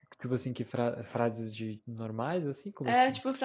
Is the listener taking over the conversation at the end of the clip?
Yes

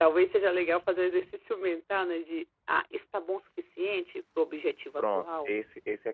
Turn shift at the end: Yes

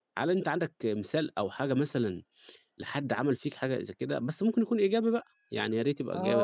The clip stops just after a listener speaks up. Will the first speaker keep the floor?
No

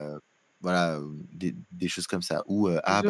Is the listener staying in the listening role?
Yes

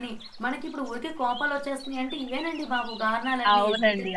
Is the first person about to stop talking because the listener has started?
Yes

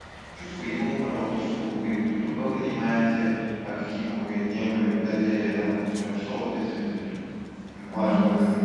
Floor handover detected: Yes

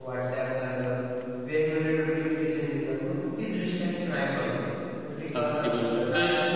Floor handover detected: Yes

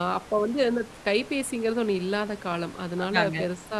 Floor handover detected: No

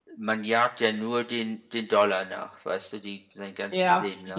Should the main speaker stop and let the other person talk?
Yes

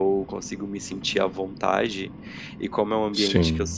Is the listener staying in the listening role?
Yes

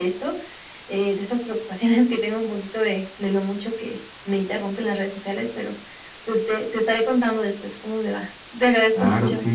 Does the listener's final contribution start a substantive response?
Yes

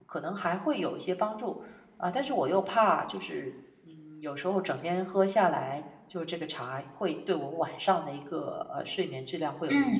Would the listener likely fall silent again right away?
No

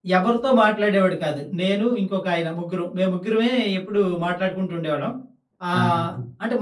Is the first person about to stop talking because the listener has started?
No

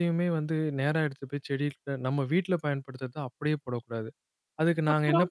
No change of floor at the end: Yes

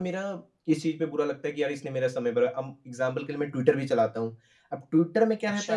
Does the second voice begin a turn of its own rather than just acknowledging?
No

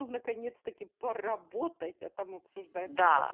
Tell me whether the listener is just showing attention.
No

